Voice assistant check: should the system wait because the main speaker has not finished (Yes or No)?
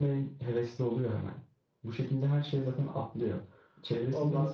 Yes